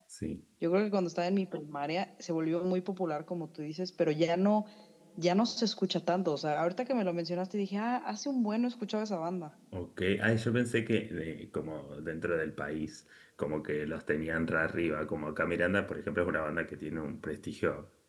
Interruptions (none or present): none